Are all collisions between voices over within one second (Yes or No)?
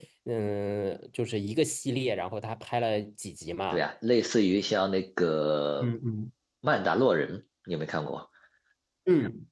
Yes